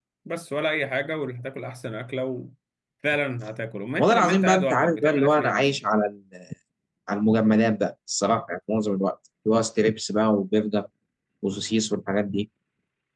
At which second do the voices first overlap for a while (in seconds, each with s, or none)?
4.0 s